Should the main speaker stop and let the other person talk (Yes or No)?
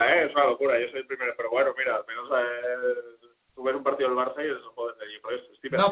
Yes